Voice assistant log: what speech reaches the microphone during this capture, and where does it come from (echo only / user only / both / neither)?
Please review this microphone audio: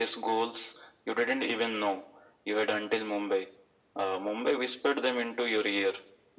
echo only